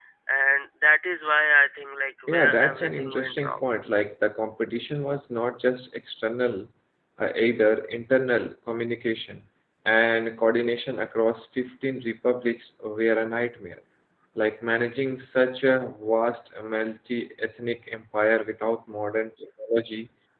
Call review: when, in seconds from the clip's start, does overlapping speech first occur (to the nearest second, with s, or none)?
2 s